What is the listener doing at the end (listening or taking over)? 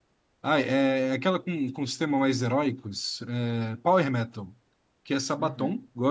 listening